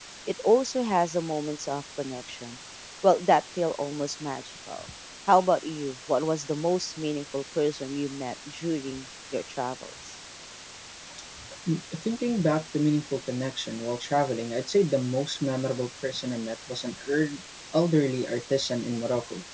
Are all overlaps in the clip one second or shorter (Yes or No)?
Yes